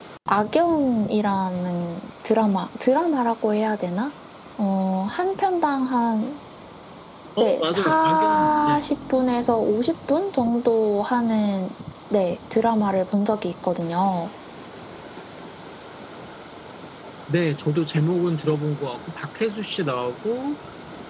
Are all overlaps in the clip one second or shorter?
No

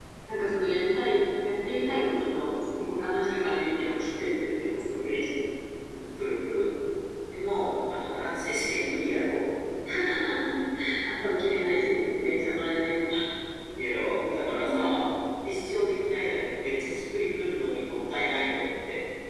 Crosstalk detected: No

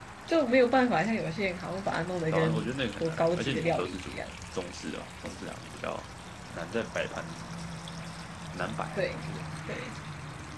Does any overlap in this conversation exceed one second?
Yes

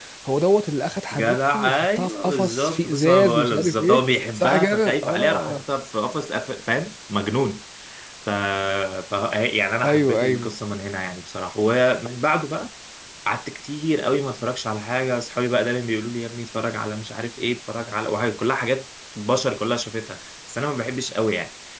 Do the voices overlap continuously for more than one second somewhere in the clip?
Yes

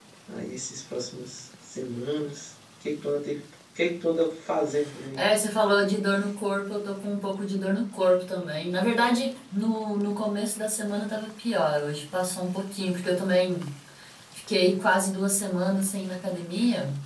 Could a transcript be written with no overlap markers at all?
Yes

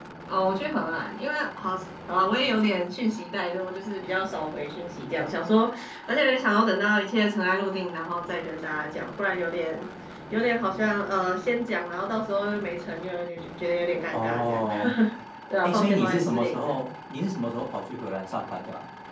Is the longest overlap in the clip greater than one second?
Yes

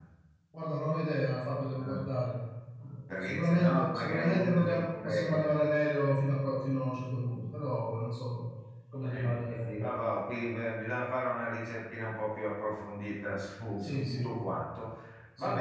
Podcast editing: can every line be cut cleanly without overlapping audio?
No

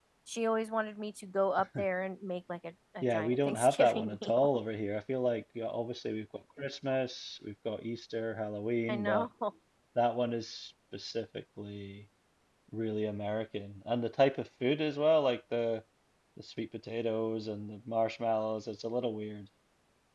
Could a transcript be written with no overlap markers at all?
No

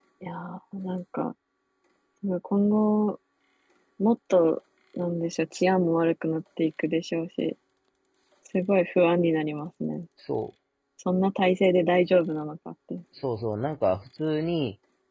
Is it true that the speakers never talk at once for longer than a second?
Yes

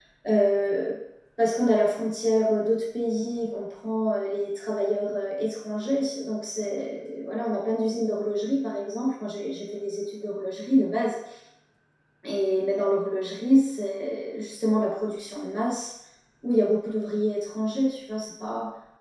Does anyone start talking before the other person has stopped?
No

